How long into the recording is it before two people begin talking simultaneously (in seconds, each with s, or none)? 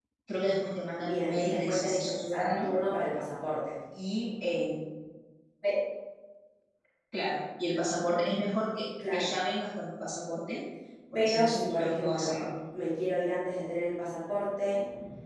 1.0 s